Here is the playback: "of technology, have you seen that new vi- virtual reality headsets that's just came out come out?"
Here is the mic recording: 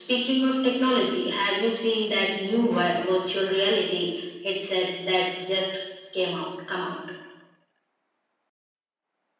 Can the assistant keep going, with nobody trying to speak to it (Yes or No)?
Yes